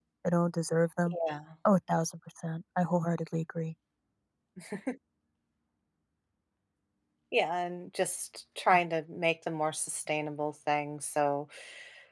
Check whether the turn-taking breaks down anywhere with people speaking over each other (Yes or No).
No